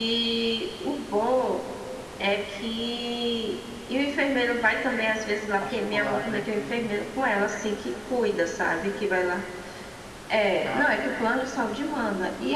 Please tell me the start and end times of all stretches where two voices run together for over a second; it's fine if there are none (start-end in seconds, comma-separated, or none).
5.6-6.9